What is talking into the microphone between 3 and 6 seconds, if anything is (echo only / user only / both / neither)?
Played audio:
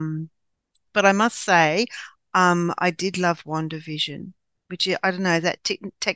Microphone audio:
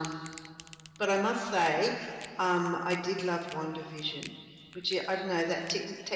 echo only